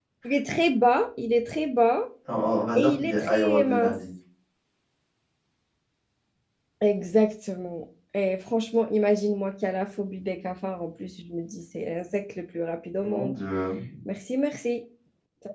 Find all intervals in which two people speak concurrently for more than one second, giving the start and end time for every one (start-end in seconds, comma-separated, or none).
2.8-4.0